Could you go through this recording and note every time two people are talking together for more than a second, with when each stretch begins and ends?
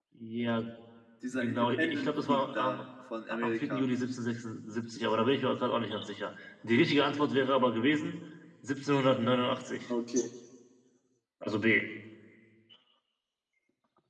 1.3-2.8

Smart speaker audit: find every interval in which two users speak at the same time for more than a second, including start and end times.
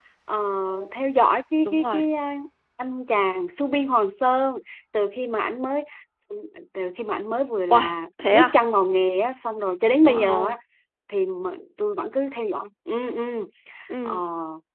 none

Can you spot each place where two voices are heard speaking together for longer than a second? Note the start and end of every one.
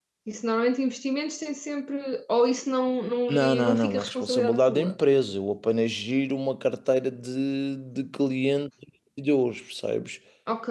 3.3-5.0

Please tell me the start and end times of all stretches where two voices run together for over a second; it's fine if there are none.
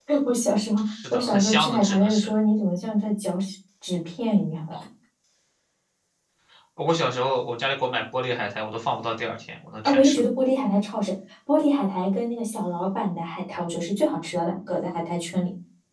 0.9-2.3

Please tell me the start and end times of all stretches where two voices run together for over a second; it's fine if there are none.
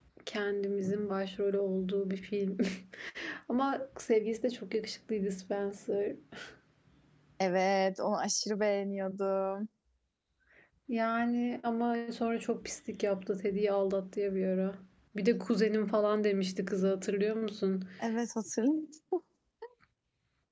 none

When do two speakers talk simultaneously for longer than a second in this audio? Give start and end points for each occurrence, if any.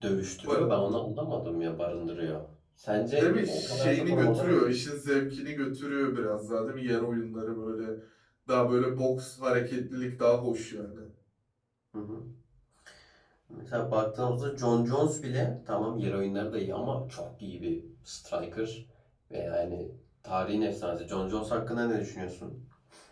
3.1-4.5

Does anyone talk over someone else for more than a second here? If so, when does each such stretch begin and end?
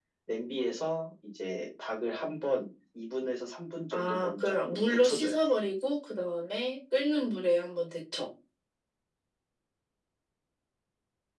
3.9-5.4

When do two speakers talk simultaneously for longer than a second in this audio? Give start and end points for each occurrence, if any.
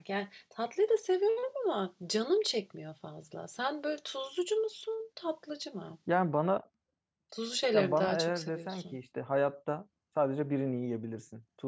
7.7-9.0

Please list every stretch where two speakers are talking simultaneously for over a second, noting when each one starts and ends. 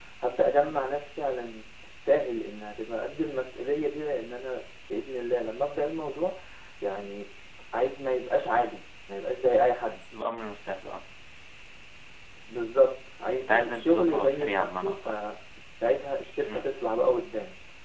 13.4-15.2

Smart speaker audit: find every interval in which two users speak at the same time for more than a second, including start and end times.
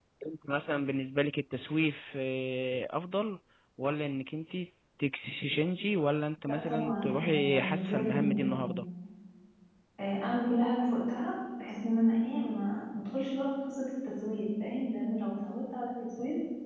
6.5-8.8

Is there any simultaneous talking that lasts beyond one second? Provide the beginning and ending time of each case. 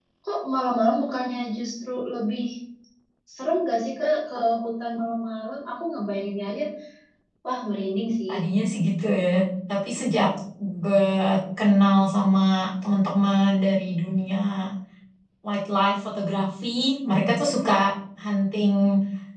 none

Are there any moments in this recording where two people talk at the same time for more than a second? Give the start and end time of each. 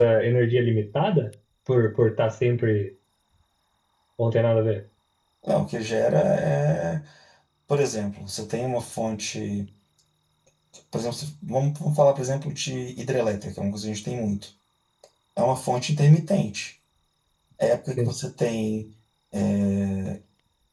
none

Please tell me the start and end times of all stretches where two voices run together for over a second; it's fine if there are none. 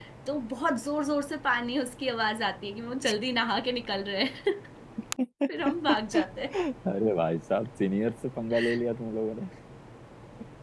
none

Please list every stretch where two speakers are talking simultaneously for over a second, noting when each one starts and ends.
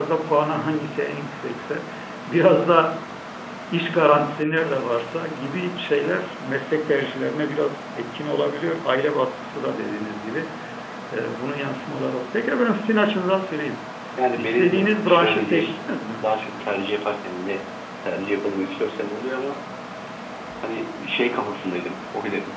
14.3-15.7

